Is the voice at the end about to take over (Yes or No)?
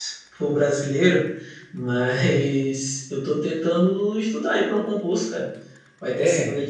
No